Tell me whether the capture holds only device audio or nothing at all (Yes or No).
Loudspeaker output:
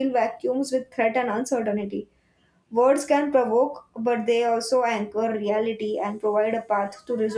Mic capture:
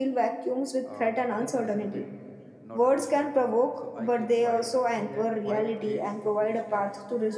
No